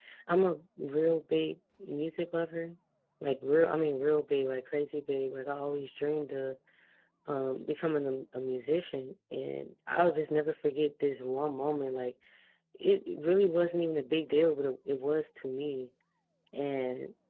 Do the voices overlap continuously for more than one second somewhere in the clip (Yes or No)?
No